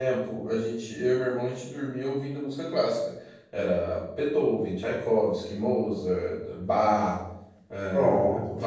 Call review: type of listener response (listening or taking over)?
listening